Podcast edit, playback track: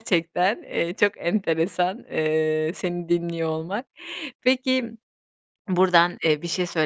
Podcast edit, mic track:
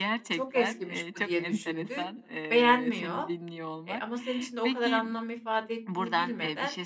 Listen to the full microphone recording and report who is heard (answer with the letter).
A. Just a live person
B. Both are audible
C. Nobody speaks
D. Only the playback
B